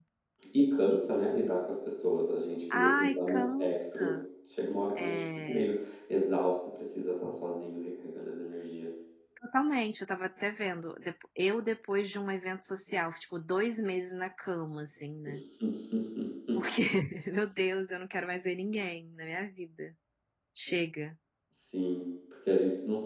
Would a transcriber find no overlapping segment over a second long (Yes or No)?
No